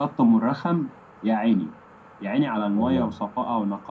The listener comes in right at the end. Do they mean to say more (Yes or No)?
No